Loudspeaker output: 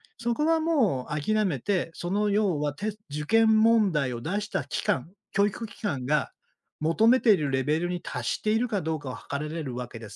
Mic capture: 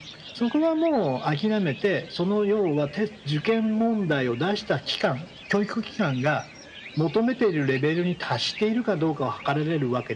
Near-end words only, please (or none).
none